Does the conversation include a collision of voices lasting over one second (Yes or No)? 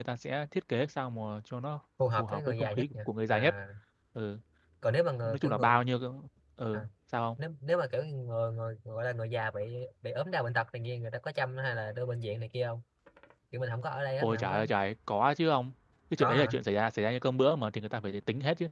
Yes